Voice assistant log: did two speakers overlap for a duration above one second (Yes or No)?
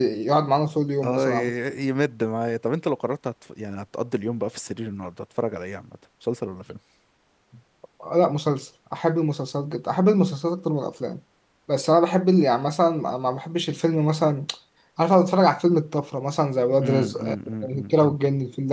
Yes